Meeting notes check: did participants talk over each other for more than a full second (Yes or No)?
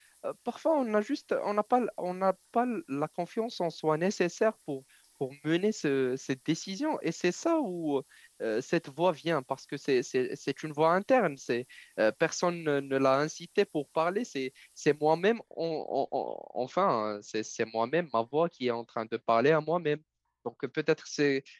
No